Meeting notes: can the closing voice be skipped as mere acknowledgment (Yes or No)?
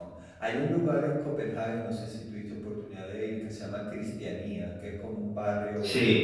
Yes